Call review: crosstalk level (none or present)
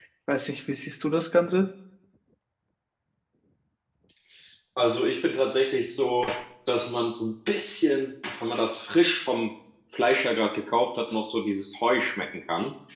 none